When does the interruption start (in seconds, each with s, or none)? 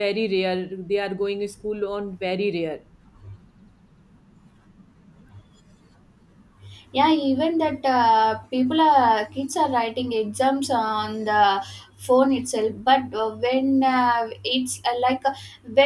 none